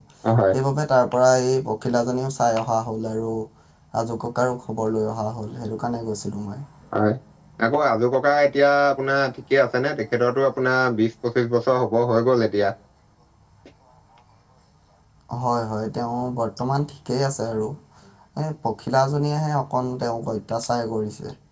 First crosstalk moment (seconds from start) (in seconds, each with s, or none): none